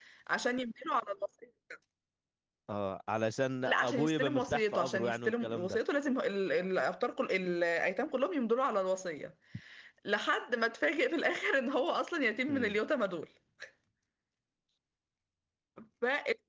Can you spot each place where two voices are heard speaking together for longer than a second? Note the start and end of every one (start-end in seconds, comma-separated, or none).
3.6-5.8